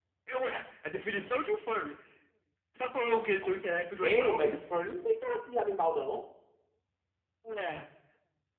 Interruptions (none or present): present